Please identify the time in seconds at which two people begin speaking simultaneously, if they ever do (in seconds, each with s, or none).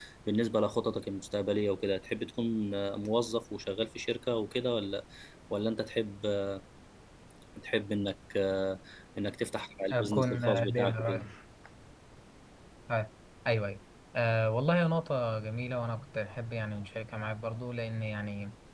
9.9 s